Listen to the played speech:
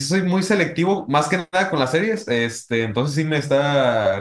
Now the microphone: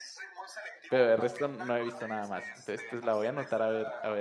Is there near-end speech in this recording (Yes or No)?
Yes